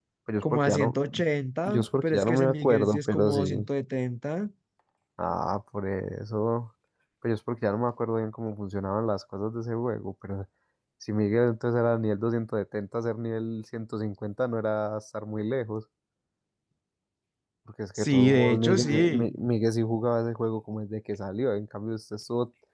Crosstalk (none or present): present